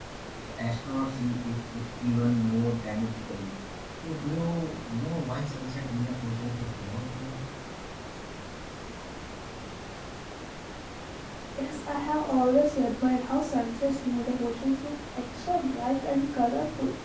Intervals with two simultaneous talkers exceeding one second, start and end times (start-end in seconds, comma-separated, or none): none